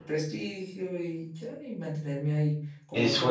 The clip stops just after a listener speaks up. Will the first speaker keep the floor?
No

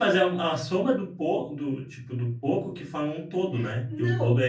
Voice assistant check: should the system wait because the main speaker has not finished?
No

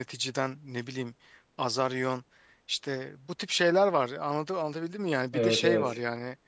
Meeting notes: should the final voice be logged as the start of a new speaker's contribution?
No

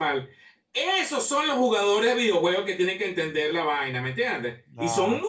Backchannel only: Yes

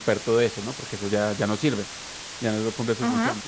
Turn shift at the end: No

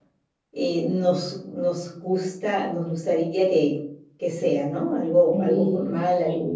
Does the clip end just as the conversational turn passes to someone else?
Yes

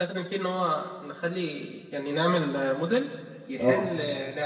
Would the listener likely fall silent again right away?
Yes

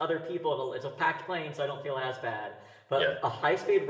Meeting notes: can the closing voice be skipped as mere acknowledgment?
Yes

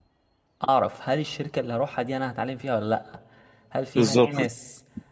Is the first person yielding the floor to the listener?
No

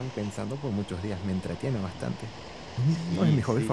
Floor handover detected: Yes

